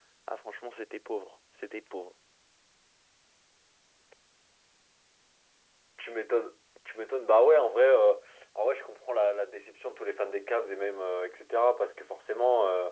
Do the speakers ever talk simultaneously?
No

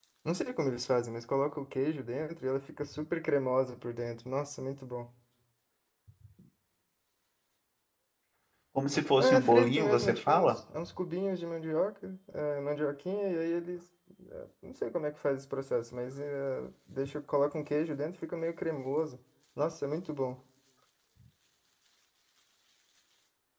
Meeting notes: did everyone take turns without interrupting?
No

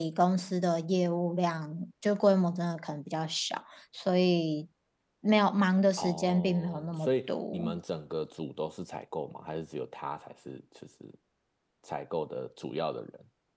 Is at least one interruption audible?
Yes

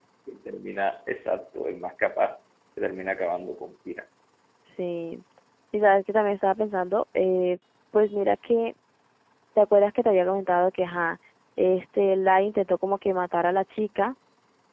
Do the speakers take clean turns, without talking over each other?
Yes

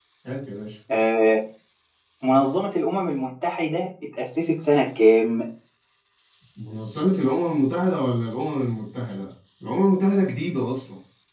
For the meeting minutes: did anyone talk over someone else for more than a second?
No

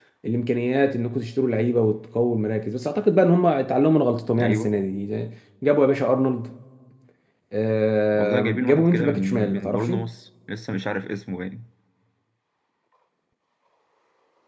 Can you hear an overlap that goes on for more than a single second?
Yes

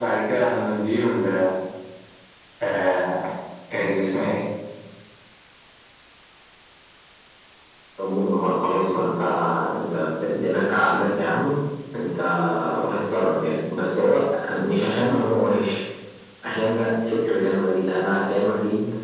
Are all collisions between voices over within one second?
Yes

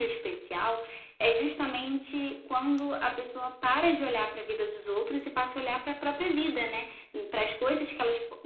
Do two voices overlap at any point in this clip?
No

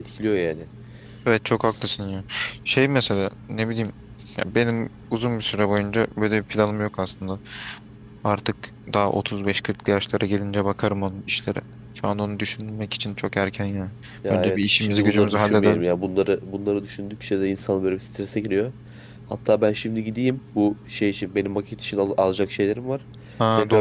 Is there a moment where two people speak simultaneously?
Yes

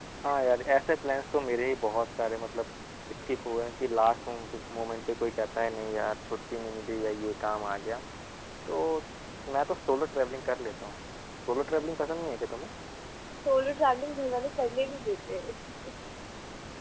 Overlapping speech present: No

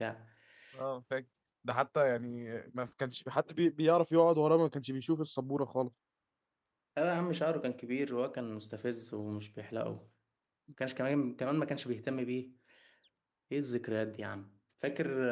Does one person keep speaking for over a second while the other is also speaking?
No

